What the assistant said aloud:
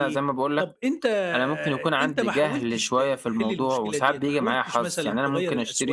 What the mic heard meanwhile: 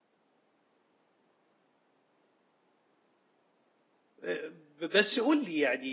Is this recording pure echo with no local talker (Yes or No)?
No